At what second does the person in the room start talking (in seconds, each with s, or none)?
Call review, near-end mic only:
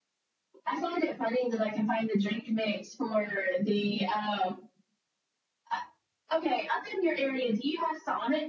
none